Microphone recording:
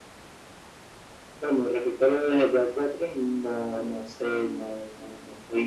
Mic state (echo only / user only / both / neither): echo only